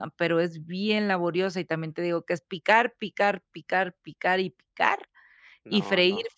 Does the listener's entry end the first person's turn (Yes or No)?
No